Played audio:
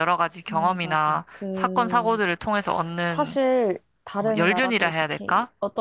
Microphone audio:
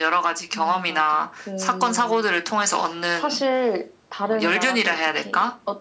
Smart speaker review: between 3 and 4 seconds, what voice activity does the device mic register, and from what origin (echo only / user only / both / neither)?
echo only